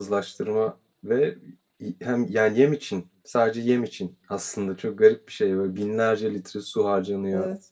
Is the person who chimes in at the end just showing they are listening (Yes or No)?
Yes